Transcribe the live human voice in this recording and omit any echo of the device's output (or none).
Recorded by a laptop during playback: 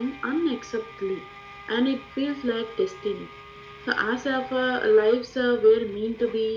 none